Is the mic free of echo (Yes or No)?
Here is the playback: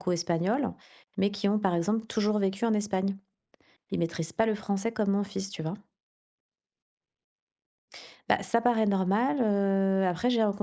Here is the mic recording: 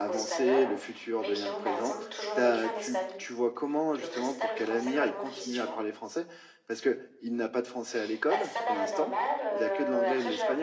No